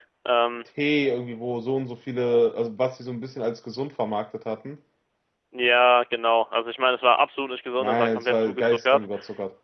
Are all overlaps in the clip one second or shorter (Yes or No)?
No